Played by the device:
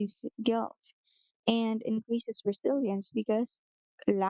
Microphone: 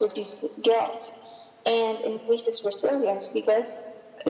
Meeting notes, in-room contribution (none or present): none